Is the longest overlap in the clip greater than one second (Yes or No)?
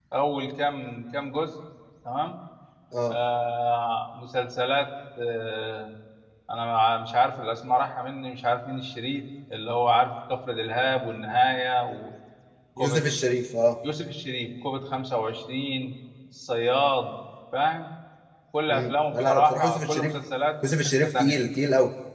Yes